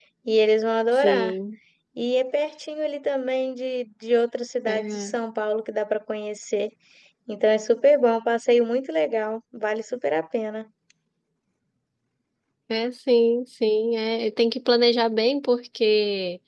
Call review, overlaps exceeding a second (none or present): none